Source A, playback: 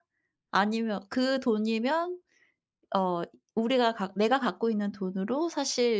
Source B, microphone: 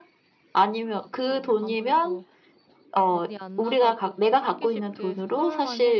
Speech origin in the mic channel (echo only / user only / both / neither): both